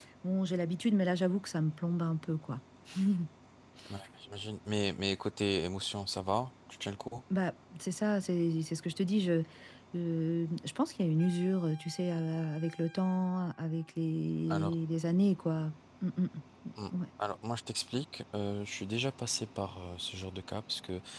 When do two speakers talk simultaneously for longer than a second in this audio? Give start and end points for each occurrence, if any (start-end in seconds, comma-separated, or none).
none